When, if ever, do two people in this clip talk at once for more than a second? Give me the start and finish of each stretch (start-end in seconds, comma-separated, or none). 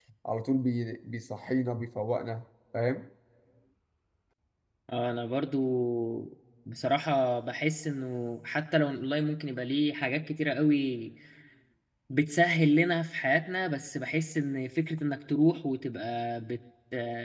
none